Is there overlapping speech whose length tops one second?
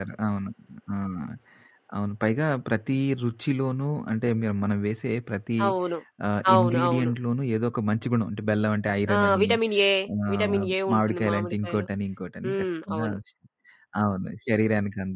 Yes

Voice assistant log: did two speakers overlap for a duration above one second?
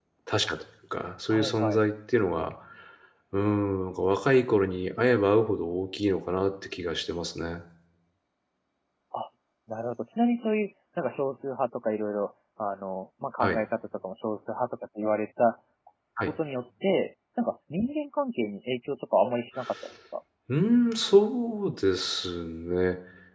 No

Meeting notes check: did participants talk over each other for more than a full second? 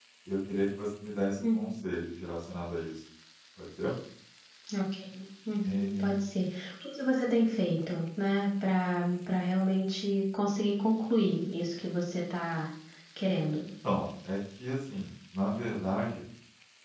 No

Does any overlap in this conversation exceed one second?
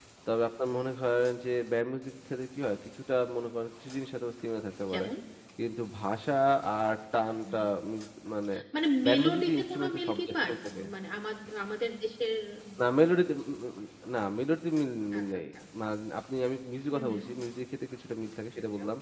Yes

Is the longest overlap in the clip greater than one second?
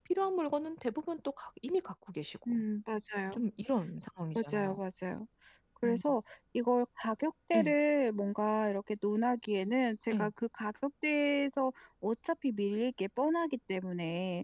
No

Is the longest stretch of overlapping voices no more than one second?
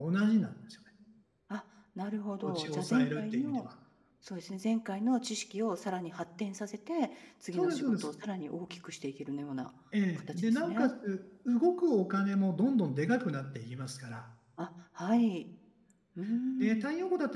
No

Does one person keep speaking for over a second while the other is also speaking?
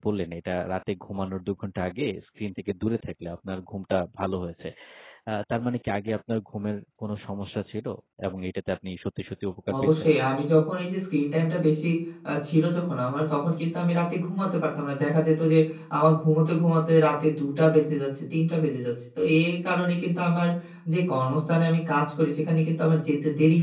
No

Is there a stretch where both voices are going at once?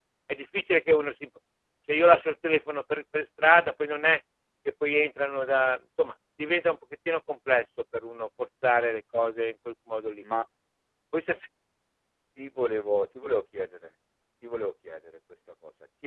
No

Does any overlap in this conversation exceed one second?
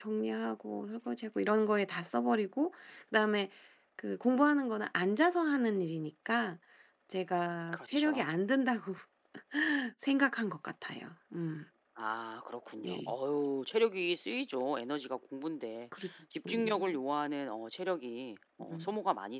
No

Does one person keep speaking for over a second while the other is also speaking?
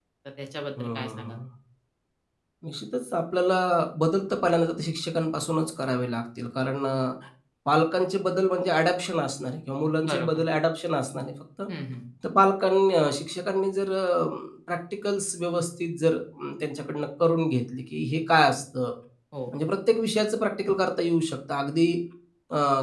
No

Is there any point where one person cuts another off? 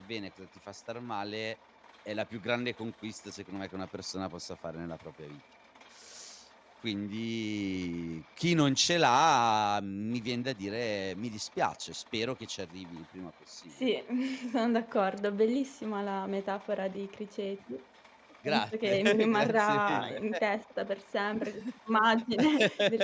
Yes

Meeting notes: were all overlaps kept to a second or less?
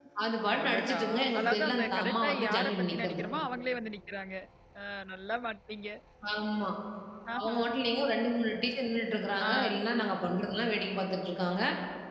No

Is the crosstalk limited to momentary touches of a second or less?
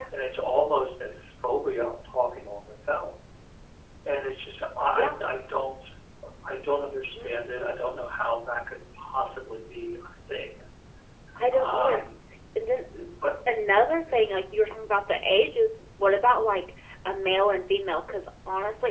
Yes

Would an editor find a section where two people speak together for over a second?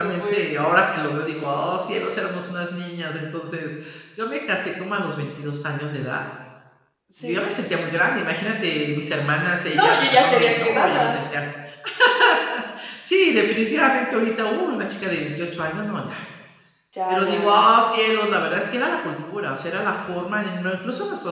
Yes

